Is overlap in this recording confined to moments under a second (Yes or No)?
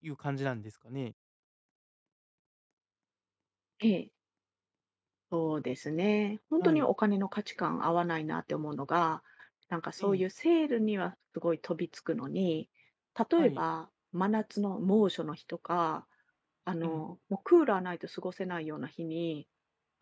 Yes